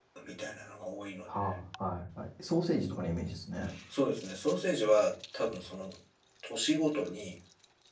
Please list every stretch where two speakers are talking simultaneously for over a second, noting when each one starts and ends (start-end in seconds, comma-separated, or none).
none